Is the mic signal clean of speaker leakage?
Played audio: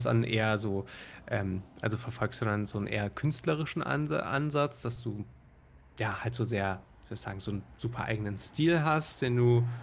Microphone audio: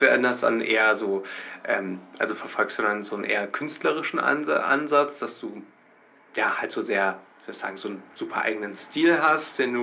No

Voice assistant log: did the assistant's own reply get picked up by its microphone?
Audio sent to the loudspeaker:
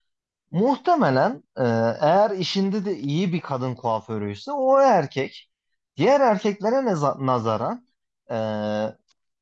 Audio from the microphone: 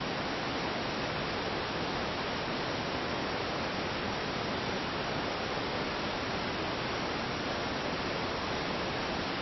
No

